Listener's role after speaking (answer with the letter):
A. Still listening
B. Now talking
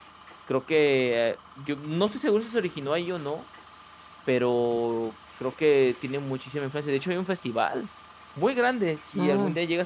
A